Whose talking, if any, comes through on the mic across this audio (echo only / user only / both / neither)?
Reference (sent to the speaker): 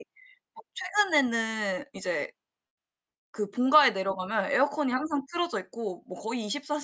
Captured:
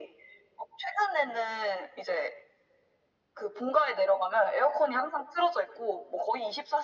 echo only